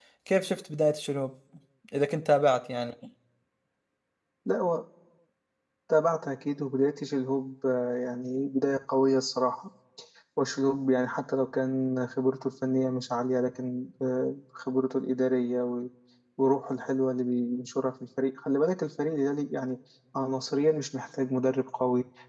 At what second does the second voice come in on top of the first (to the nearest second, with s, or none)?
none